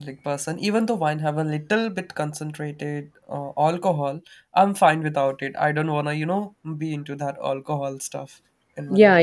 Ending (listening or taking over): taking over